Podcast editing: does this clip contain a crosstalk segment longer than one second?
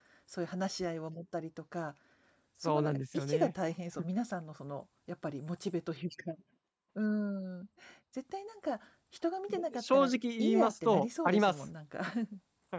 Yes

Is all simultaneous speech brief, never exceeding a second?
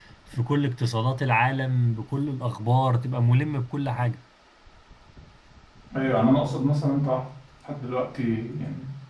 Yes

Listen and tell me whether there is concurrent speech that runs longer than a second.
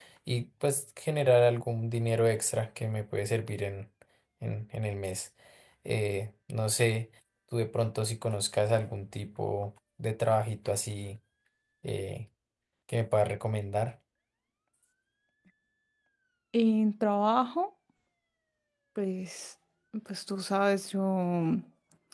No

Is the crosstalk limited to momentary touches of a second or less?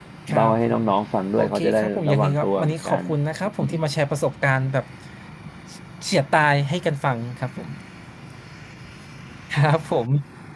No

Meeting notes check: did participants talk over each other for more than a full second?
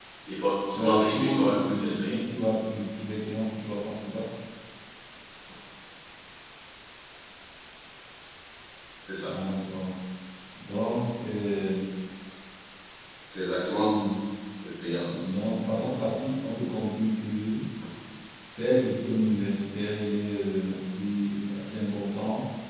Yes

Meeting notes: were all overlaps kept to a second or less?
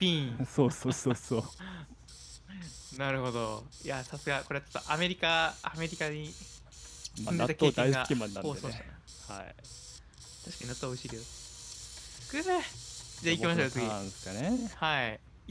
No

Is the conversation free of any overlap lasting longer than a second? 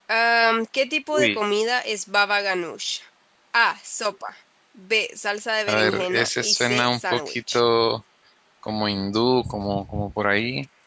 No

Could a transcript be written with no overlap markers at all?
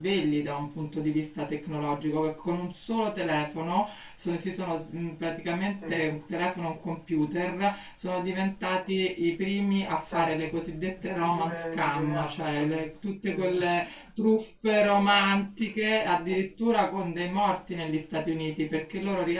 No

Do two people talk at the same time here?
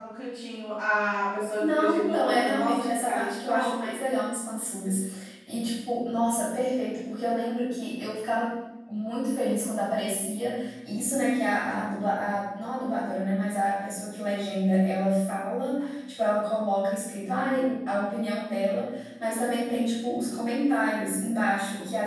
Yes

